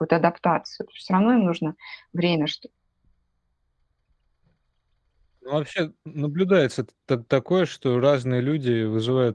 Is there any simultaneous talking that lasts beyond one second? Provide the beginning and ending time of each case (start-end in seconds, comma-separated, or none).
none